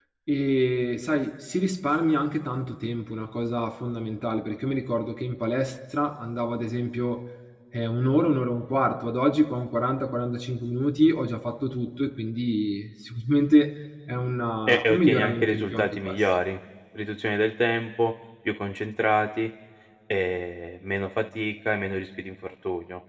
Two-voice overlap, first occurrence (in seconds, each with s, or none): 14.7 s